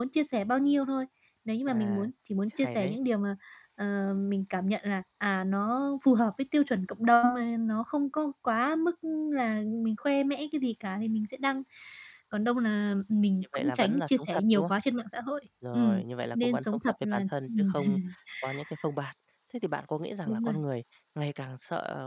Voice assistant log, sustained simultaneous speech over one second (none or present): present